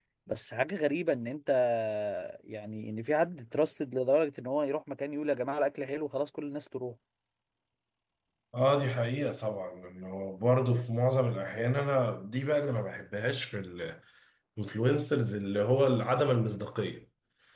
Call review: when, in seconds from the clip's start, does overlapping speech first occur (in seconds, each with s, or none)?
none